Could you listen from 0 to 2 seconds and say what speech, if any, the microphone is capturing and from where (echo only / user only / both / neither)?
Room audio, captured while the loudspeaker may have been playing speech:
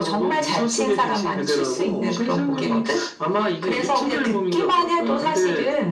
echo only